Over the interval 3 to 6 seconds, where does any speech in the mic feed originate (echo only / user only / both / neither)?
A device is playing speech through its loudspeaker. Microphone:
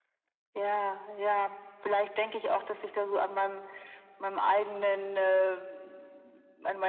echo only